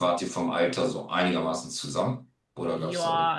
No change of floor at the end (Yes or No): No